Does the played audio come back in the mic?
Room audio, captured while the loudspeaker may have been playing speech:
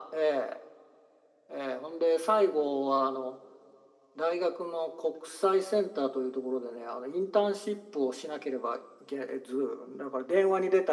Yes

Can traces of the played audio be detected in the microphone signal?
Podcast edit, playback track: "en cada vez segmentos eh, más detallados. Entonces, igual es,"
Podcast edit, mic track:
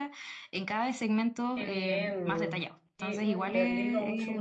Yes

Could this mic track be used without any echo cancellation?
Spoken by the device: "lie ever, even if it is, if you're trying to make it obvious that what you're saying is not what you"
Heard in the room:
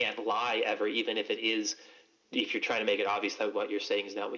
No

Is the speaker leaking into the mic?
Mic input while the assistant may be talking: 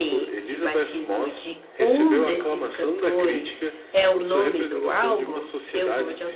Yes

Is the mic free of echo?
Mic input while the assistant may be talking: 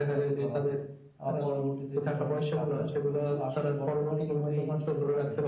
No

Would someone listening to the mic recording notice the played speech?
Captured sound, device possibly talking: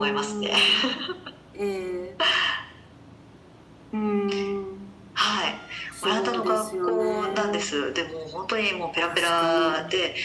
Yes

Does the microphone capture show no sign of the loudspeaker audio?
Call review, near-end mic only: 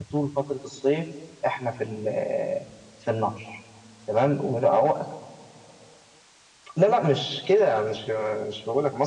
Yes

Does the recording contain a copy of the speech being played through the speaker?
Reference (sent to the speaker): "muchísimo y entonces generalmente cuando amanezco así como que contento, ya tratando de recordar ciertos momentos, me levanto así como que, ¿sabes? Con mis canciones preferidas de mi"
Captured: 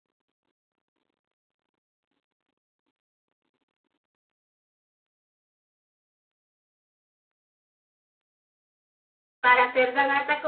No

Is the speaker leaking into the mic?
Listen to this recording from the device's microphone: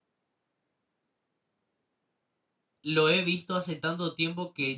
No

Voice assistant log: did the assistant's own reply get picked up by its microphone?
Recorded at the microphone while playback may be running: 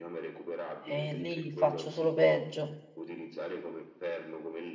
Yes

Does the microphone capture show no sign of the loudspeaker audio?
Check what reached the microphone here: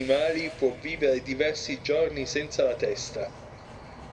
No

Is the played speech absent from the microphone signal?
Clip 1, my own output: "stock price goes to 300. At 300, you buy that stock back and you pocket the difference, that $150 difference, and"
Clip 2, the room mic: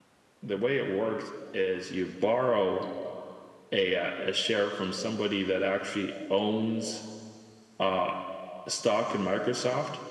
Yes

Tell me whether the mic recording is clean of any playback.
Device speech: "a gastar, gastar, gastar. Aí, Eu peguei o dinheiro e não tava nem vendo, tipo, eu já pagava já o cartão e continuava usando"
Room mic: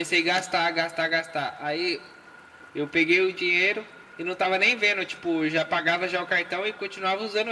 No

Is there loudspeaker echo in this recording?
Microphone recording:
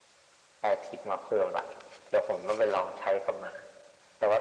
Yes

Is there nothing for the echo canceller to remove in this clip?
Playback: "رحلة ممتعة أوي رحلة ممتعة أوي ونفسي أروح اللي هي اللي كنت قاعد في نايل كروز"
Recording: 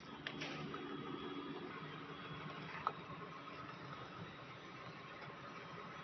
Yes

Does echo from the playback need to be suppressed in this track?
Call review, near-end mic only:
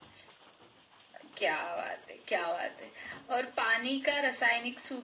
Yes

